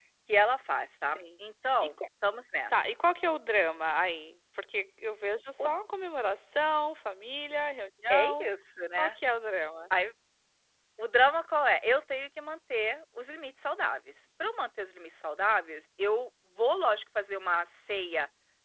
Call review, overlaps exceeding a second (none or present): none